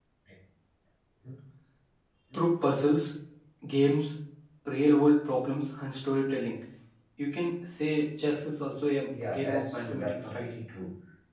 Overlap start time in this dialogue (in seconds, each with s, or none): 9.1 s